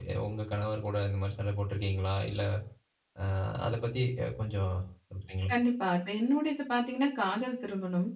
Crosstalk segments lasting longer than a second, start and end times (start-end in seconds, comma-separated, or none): none